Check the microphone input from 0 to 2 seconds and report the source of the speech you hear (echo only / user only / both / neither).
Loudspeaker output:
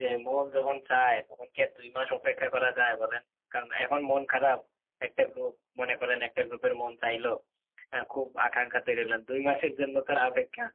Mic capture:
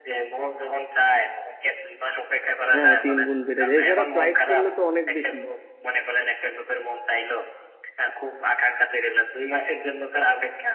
echo only